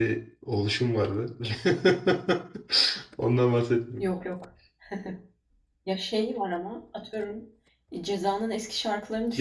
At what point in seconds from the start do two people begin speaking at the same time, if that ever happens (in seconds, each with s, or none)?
none